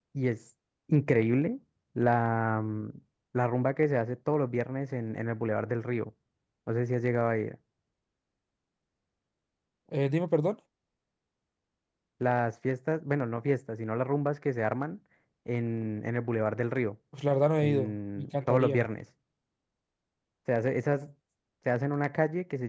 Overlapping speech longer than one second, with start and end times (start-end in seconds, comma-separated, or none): 17.6-18.9